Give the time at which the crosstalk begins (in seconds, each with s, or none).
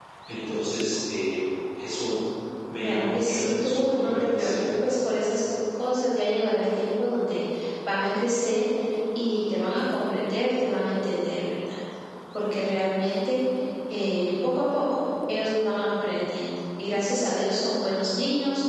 2.8 s